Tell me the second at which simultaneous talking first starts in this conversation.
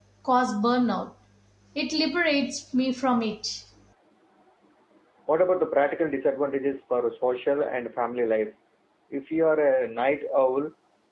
none

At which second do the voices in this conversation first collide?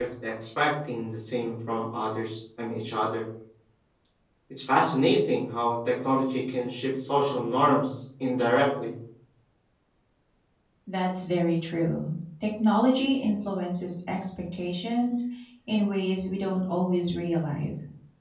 none

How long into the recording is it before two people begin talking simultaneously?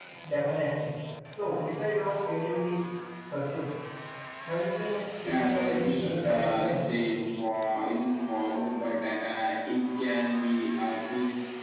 5.2 s

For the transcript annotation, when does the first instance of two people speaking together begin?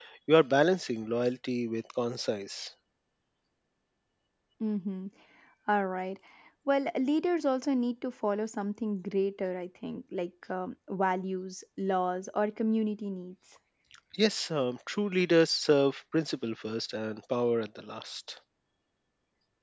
none

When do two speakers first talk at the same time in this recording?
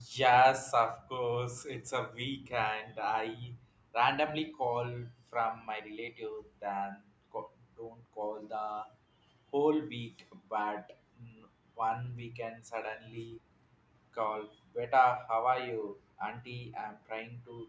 none

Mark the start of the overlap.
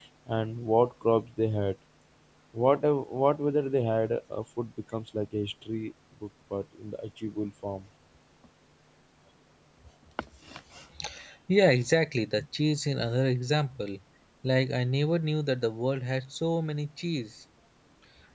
none

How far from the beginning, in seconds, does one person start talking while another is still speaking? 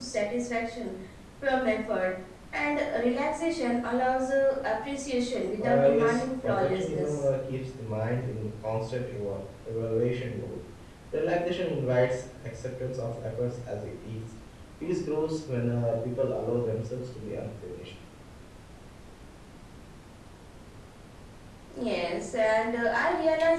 5.6 s

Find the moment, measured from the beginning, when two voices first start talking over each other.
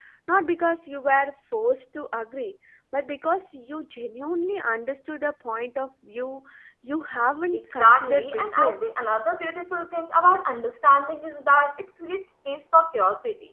7.5 s

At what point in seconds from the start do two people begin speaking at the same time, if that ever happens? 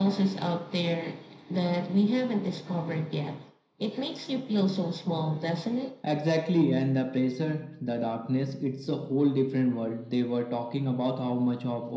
none

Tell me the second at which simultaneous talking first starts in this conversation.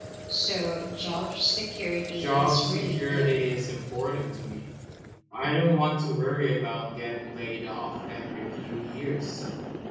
2.2 s

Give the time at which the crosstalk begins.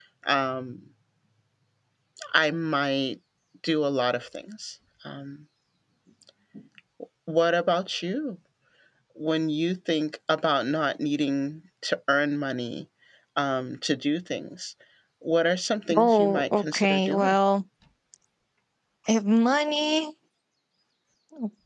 16.0 s

